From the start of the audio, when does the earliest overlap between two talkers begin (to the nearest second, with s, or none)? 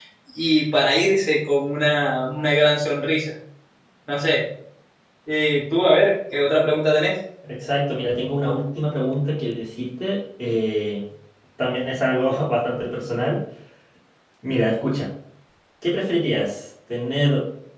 none